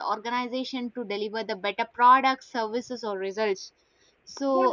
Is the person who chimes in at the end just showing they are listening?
No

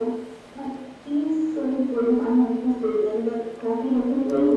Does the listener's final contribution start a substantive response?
No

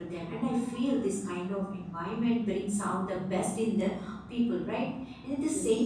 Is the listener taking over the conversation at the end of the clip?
No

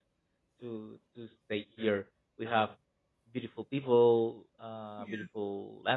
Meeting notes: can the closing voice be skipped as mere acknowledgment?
Yes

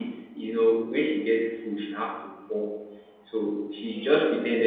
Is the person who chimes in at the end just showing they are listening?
Yes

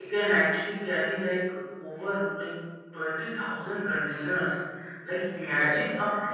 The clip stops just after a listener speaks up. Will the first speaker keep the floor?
Yes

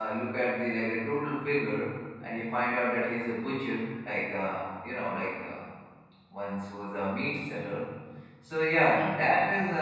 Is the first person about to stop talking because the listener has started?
No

